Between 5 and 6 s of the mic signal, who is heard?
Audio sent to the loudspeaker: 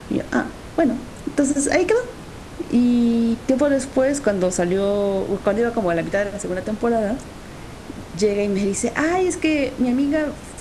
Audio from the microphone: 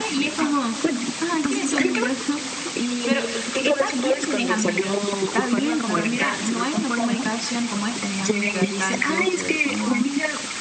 both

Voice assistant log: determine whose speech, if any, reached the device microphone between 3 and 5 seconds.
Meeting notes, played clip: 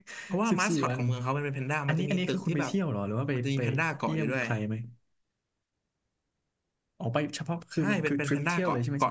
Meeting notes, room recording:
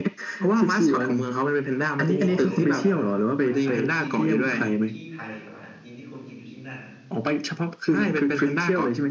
both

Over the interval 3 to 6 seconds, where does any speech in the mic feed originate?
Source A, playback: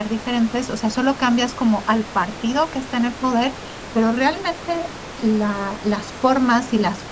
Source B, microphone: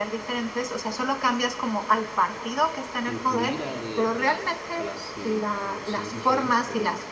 both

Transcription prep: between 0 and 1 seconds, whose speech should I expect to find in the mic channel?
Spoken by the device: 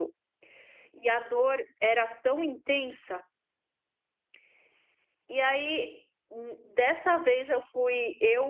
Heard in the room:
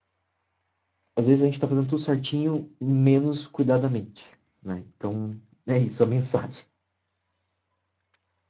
neither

